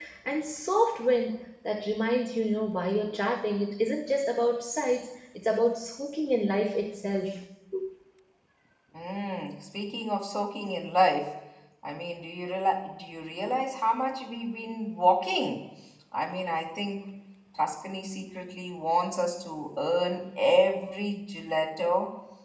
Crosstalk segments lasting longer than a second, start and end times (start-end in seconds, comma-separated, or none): none